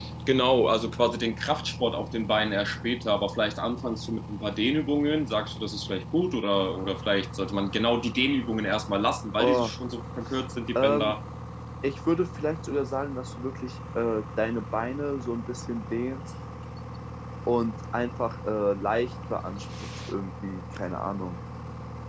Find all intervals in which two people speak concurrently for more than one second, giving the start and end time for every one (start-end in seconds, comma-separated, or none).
none